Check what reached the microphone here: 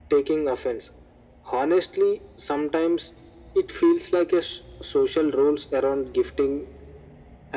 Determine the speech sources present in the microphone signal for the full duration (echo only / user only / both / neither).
echo only